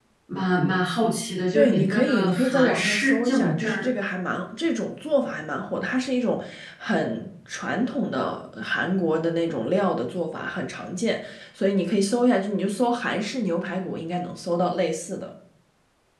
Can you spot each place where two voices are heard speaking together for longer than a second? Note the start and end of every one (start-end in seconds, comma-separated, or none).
1.5-3.9